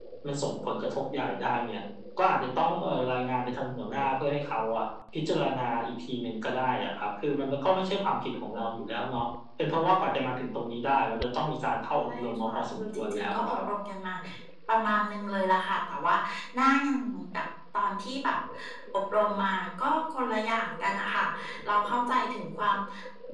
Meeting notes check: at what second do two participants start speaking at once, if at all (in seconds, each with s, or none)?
11.9 s